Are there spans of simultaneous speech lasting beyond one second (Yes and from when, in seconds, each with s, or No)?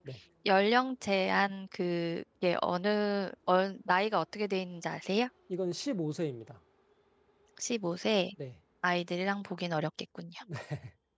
No